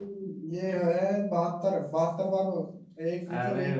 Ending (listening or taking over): taking over